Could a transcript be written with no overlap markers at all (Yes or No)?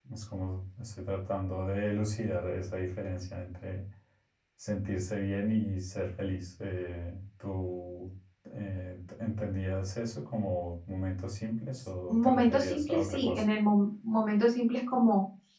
No